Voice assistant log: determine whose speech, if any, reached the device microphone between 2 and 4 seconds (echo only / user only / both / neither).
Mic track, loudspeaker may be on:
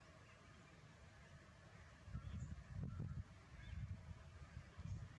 neither